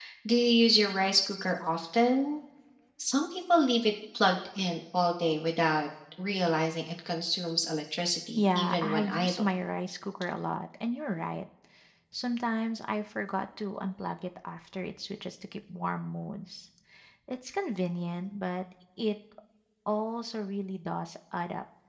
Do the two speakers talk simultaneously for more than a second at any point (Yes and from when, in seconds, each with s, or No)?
Yes, from 8.3 s